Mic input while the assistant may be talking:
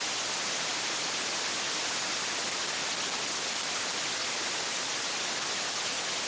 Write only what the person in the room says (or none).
none